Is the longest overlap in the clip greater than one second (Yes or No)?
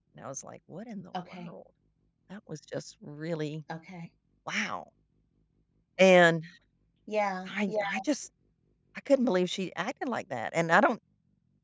No